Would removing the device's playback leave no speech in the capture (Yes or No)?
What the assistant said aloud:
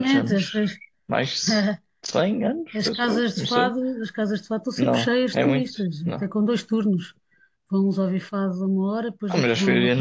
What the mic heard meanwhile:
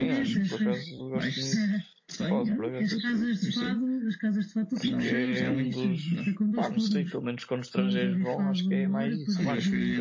No